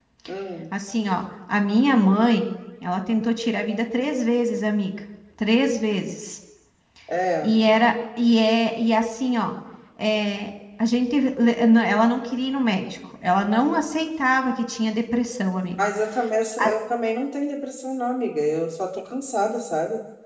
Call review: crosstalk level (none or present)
none